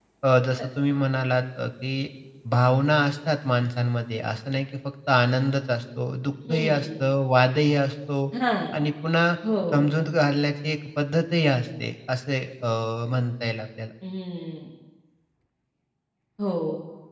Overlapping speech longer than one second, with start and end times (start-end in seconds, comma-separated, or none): none